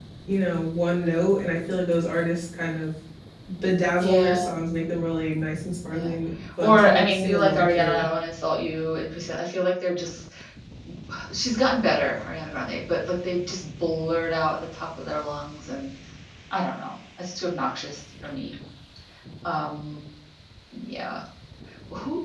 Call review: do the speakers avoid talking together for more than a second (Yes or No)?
No